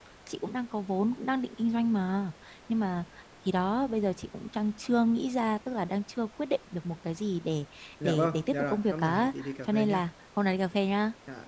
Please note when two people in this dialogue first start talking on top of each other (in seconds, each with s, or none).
8.0 s